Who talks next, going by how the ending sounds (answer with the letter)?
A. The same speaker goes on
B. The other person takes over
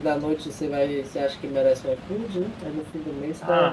B